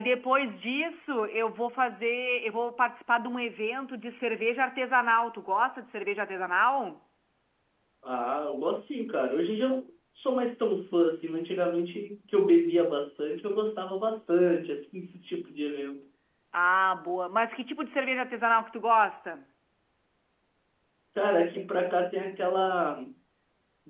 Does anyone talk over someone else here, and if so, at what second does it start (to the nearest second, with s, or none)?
none